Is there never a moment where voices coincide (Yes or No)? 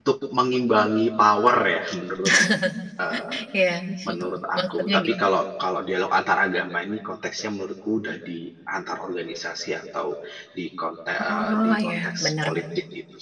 No